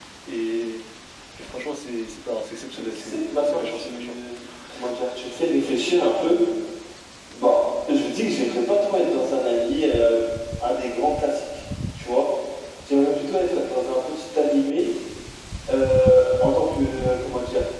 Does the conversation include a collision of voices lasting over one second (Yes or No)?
Yes